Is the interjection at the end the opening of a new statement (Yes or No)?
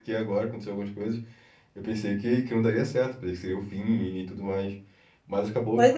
Yes